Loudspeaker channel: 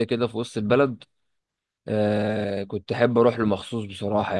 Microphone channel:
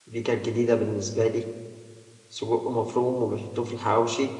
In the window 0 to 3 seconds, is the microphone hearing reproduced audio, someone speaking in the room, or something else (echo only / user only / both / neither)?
user only